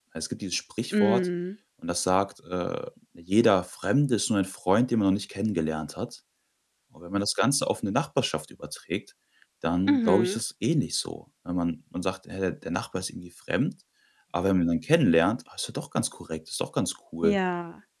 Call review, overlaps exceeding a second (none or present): none